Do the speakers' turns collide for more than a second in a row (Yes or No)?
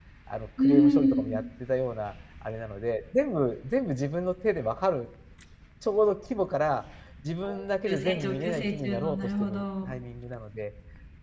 Yes